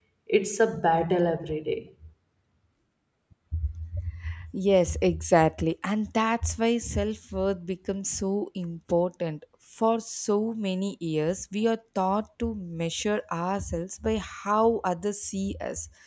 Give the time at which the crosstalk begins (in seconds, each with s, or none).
none